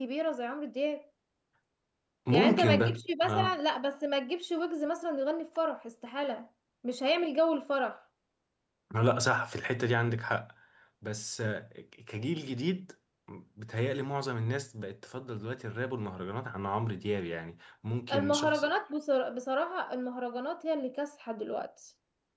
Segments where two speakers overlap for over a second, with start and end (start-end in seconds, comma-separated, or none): 2.3-3.5